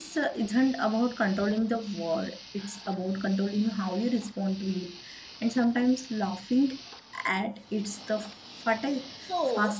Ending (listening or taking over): taking over